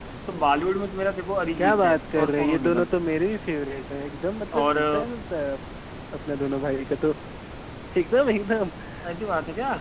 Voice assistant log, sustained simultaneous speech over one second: present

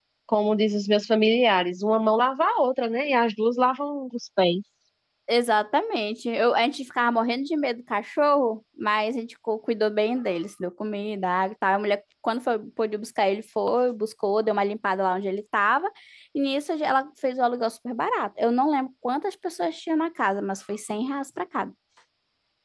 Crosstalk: none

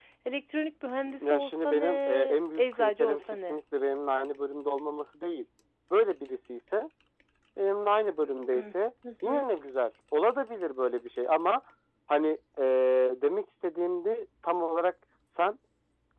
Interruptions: present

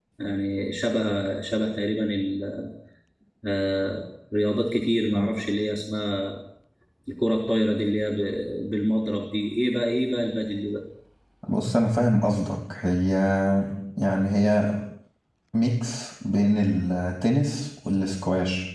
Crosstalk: none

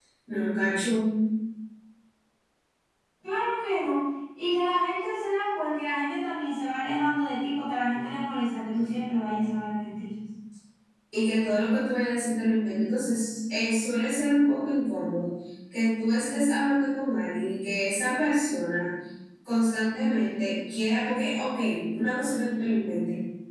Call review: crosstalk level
none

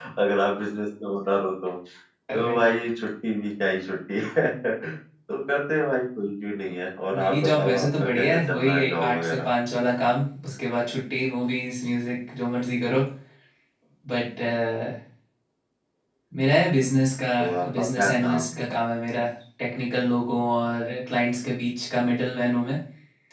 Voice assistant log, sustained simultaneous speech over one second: present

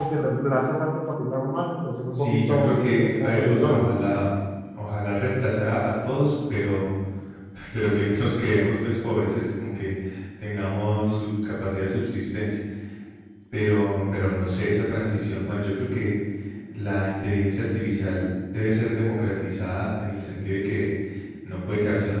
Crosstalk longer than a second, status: present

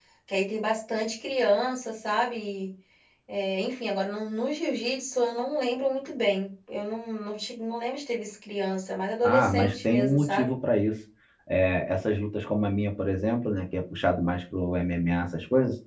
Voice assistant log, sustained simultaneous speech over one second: present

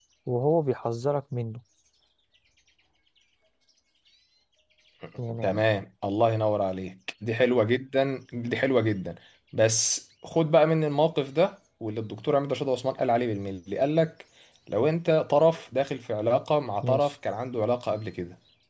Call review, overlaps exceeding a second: none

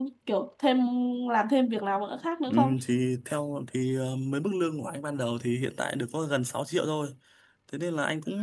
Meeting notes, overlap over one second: none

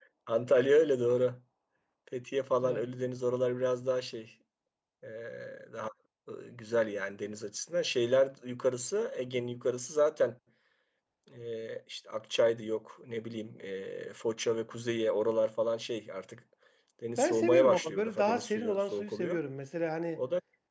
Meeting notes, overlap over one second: present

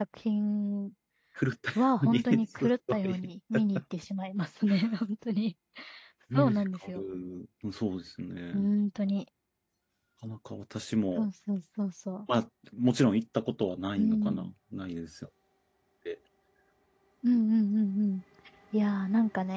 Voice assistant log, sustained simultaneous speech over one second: present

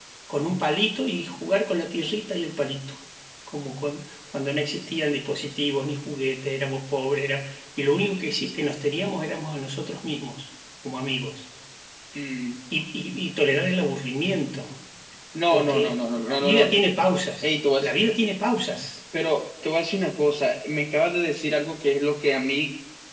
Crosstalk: present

